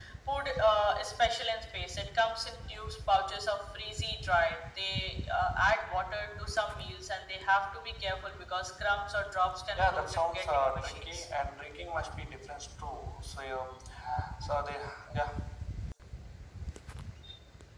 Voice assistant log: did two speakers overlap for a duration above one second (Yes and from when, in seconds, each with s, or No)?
Yes, from 9.8 s